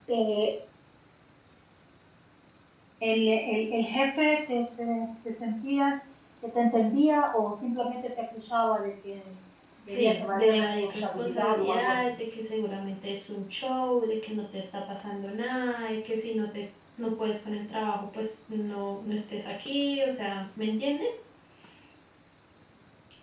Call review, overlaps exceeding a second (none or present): present